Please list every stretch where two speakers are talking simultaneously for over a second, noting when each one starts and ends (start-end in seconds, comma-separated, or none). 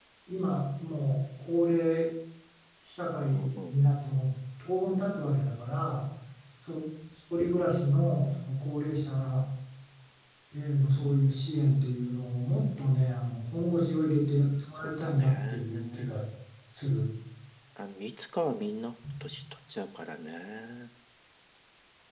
14.8-16.1